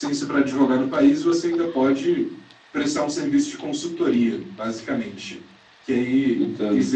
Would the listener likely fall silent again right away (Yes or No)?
Yes